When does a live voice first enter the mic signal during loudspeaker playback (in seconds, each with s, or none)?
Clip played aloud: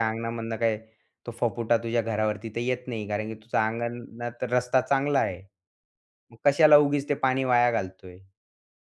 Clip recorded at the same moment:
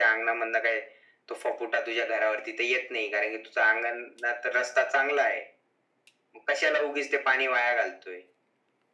none